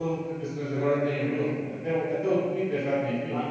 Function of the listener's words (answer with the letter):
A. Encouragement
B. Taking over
B